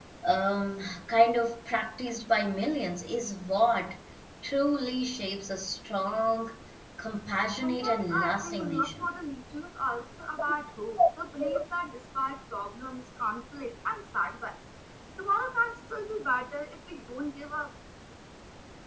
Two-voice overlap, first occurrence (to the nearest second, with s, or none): 8 s